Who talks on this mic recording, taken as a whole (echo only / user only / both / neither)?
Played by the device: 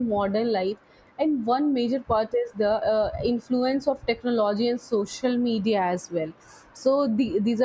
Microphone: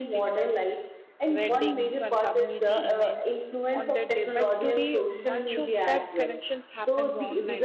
both